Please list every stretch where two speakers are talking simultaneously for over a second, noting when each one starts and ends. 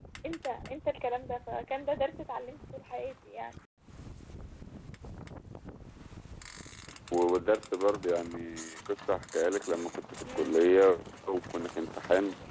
none

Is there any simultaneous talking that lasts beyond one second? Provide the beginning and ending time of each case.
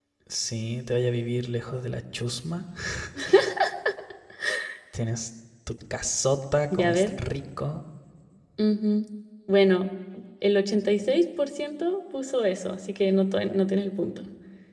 none

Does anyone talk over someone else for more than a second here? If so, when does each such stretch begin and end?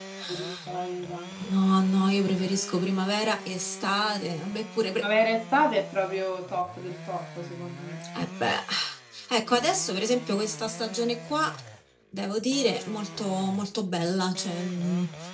none

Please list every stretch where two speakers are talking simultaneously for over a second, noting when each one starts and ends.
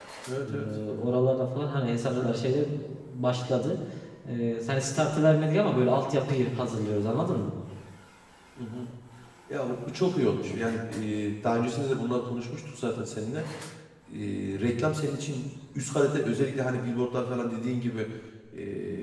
none

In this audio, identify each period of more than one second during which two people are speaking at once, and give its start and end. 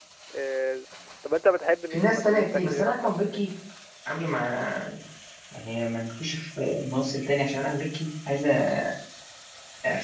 1.9-3.4

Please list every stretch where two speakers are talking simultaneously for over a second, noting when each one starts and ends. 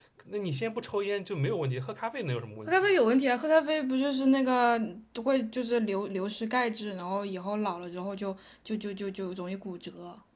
none

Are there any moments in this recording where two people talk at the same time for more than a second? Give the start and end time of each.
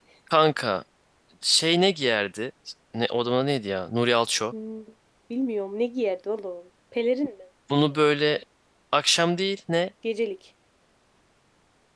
none

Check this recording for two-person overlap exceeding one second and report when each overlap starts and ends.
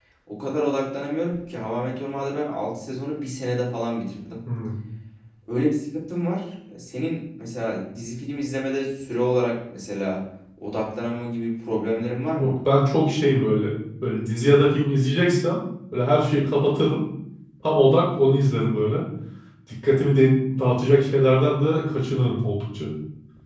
none

